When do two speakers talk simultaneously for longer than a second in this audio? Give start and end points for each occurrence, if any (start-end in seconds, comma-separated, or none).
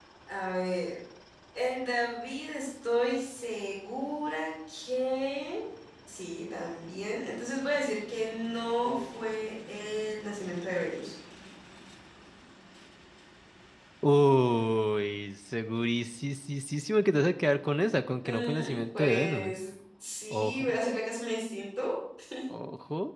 18.2-19.6